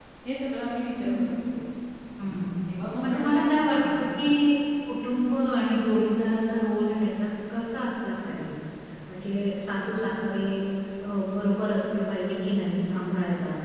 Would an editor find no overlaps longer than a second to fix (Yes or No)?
Yes